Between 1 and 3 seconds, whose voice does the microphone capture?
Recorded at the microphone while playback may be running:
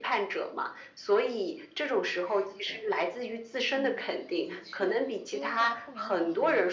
both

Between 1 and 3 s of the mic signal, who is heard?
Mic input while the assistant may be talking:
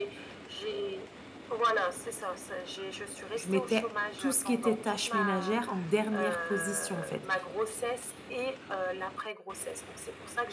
echo only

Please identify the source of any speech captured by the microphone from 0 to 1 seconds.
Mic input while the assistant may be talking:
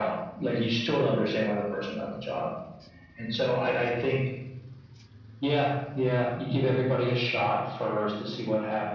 echo only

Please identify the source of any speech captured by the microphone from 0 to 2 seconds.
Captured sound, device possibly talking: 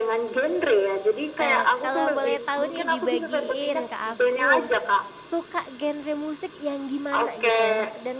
both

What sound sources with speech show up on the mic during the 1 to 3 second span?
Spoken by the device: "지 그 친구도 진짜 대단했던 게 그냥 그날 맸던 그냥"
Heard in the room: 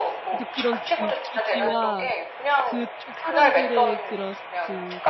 both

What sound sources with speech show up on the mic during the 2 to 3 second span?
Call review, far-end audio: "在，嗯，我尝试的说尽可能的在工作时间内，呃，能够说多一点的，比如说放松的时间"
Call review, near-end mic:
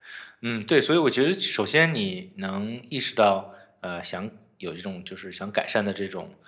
user only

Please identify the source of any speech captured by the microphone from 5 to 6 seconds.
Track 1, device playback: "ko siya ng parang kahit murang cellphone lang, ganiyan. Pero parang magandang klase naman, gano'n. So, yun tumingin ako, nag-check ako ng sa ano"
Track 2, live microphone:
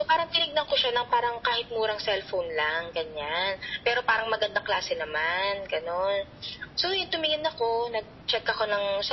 echo only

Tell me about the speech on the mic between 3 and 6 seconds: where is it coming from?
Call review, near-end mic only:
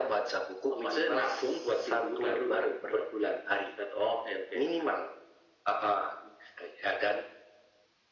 echo only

